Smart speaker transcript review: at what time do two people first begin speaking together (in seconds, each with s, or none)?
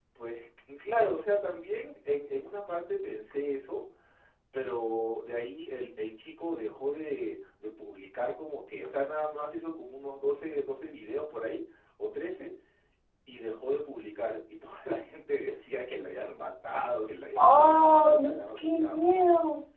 17.4 s